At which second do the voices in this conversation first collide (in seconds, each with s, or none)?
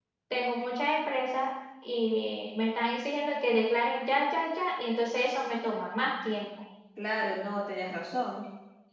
none